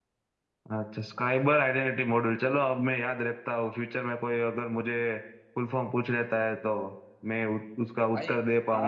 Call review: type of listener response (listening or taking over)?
taking over